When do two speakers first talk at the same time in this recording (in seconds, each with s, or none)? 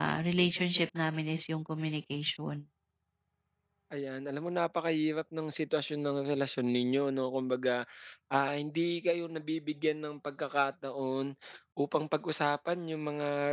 none